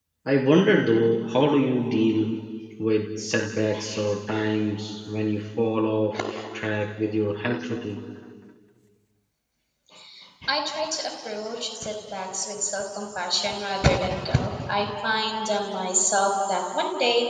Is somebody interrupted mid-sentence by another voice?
No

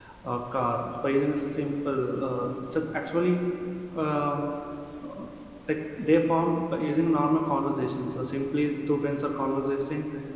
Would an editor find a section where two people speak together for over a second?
No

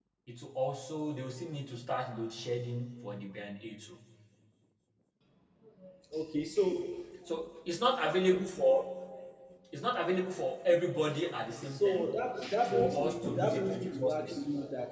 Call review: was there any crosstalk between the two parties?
Yes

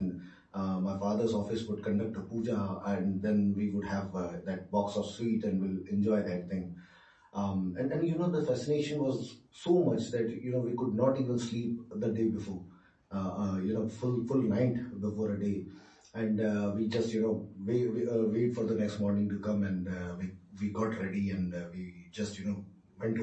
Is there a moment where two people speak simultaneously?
No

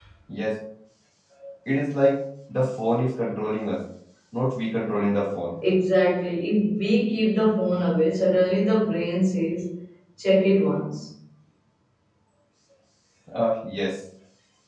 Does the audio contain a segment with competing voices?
No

